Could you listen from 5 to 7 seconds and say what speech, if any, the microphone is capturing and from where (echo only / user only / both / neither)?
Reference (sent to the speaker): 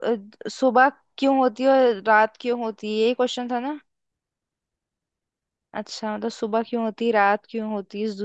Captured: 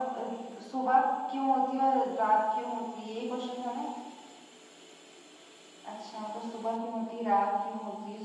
echo only